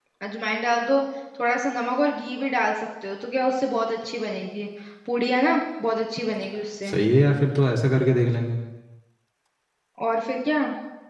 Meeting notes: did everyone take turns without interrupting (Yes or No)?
Yes